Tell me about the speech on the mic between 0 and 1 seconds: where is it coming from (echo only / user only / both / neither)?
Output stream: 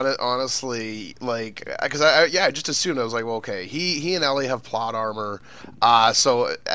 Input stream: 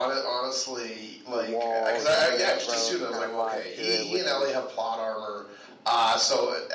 echo only